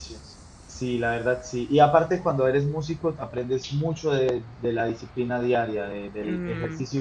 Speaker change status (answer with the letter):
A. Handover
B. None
B